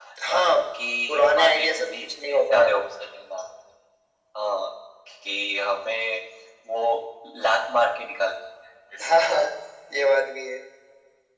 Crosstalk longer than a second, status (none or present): present